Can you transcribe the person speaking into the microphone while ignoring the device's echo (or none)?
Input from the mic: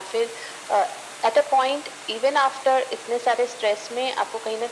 none